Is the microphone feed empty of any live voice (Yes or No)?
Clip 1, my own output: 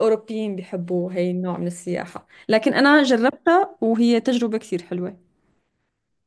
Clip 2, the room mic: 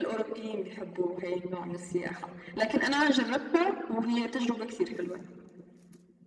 Yes